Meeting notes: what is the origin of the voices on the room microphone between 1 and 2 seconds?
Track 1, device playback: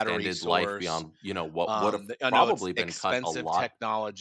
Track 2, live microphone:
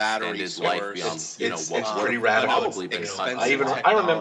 both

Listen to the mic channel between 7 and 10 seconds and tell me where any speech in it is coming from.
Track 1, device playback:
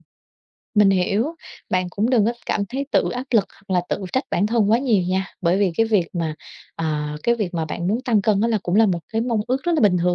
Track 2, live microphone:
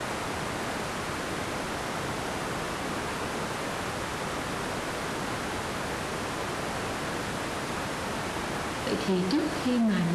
user only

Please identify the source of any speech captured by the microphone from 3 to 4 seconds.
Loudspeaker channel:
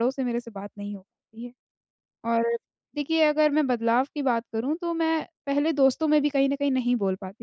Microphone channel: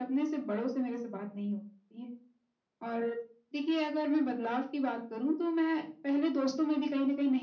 echo only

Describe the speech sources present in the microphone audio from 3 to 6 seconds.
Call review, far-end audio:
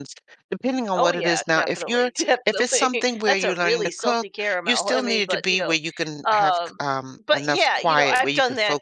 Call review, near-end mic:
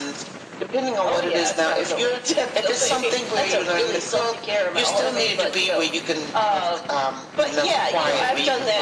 echo only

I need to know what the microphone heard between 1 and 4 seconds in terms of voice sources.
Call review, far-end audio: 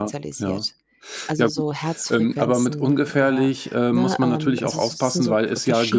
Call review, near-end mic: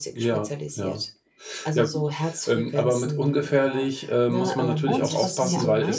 echo only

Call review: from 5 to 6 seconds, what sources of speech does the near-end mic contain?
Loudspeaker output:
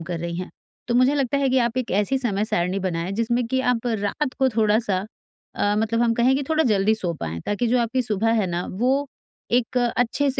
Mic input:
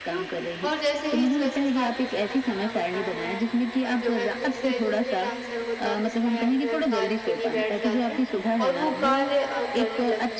both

